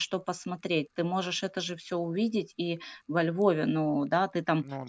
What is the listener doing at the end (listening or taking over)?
listening